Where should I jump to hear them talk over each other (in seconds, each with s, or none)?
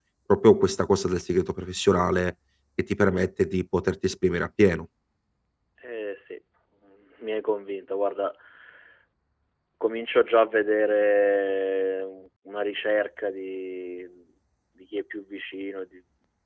none